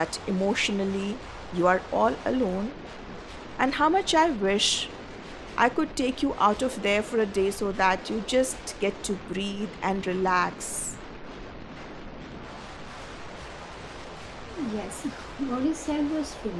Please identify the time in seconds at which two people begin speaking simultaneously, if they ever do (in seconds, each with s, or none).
none